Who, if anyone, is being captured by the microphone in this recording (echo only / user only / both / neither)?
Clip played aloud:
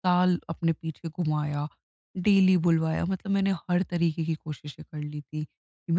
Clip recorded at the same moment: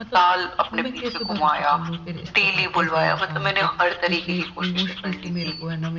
both